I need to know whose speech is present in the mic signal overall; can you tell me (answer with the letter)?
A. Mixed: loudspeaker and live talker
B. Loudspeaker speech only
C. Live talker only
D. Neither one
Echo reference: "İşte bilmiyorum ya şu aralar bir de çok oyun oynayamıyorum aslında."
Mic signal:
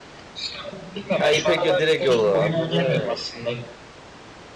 A